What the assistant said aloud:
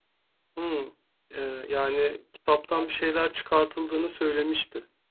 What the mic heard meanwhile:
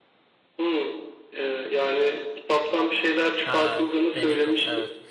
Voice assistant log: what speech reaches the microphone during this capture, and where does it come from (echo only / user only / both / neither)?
both